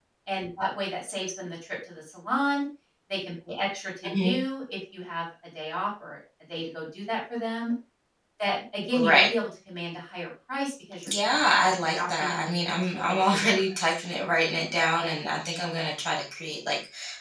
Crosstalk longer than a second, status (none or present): present